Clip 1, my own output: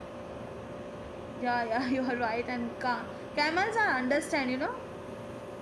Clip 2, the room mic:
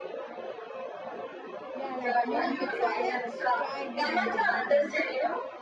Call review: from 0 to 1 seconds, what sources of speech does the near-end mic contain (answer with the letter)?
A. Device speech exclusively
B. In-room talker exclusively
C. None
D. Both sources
C